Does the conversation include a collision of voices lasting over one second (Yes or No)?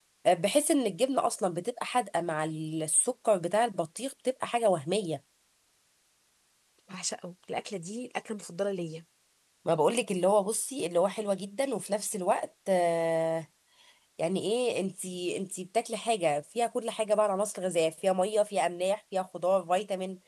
No